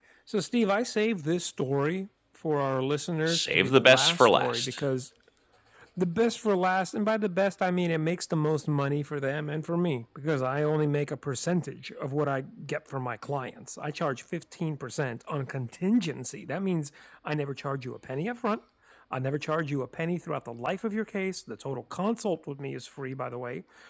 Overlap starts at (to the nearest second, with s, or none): 3 s